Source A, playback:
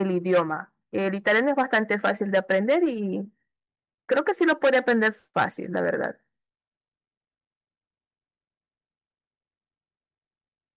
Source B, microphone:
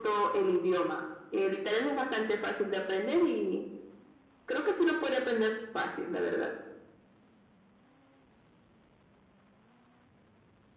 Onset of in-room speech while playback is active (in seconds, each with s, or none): none